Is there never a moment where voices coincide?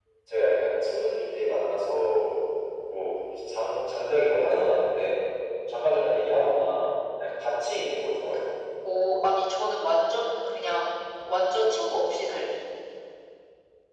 Yes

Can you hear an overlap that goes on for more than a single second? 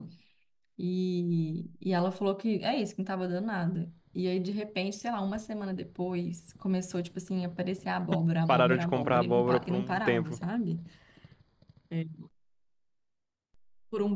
Yes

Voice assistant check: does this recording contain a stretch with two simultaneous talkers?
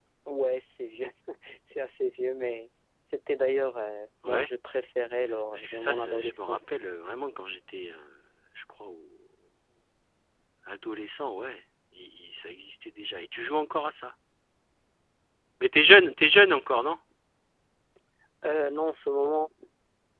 Yes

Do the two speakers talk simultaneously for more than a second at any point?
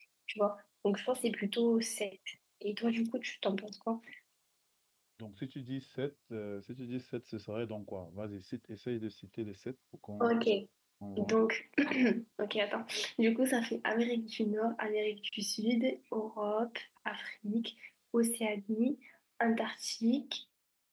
No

